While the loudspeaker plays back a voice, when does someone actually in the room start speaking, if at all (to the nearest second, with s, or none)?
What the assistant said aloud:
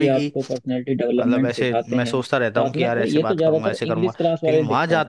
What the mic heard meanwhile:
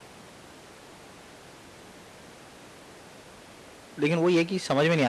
4 s